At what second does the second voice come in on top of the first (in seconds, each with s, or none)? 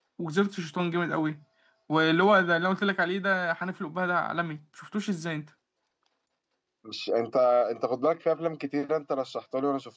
none